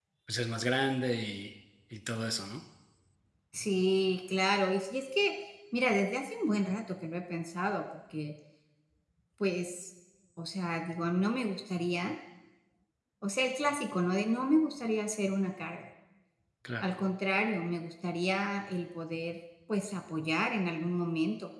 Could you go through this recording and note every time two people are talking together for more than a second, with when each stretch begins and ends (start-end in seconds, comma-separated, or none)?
none